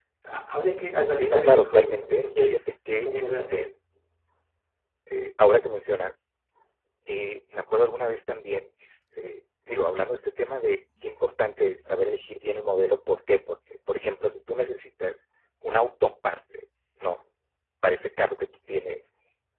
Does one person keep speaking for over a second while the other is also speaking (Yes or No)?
Yes